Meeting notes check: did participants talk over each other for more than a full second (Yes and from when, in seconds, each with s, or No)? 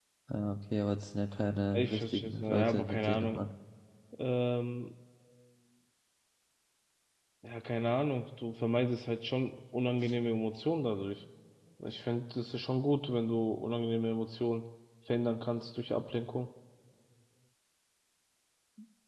Yes, from 1.7 s